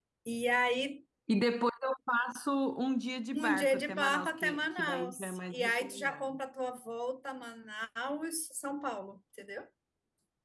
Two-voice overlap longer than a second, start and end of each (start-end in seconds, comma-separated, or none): 3.3-6.3